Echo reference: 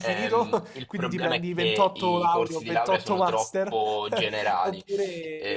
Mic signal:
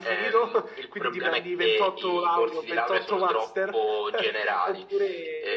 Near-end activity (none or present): none